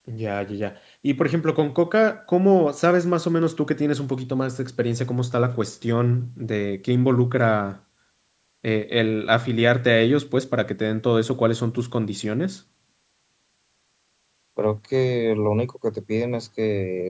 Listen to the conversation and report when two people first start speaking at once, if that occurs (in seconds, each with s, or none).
none